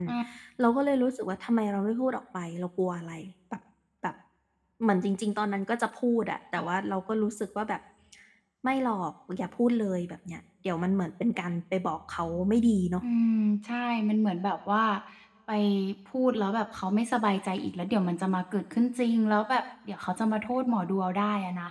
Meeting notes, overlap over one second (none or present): none